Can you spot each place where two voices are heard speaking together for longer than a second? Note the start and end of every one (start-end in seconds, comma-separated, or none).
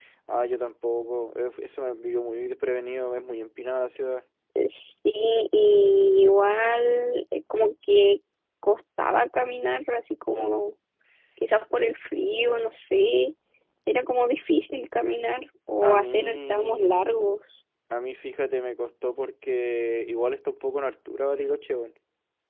15.8-17.2